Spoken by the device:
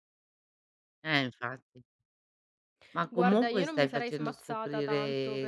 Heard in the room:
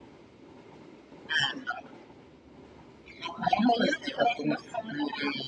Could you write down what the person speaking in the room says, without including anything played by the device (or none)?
none